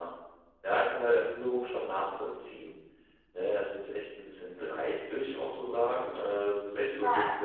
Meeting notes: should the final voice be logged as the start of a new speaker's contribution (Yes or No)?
No